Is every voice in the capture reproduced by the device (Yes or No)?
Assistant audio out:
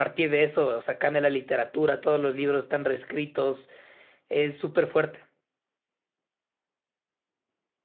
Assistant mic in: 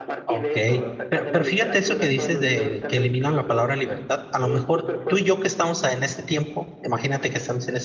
No